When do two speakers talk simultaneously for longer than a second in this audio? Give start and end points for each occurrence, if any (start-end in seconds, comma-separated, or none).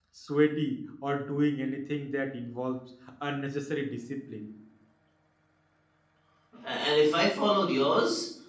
none